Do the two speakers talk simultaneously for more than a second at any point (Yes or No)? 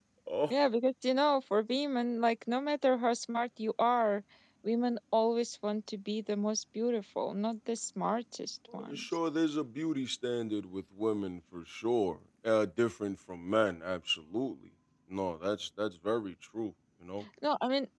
No